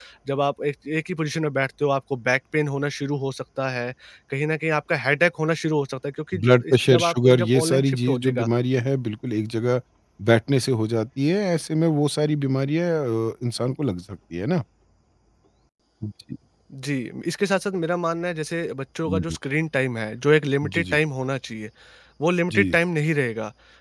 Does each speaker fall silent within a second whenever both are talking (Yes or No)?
No